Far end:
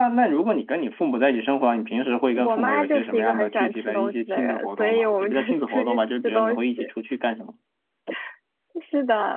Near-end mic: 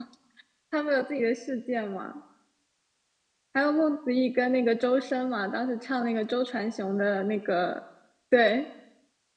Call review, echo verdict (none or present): none